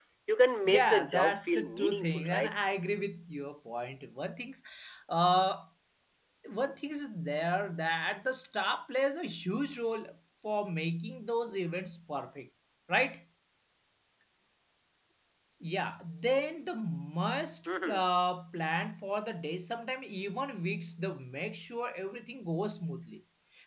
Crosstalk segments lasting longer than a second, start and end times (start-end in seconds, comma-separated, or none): 0.7-2.5